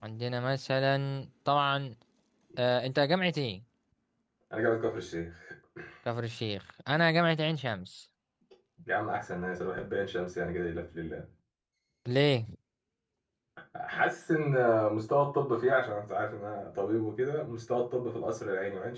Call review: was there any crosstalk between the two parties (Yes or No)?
No